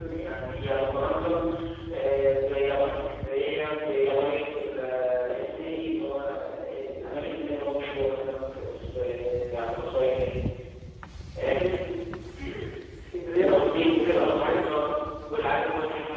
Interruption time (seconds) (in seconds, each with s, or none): 13.4 s